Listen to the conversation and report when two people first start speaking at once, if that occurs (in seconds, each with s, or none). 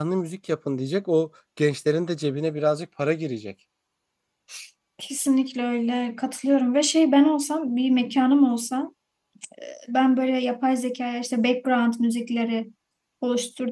none